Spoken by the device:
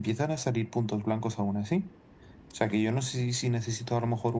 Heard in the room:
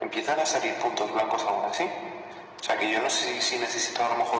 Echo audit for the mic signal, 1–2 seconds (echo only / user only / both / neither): echo only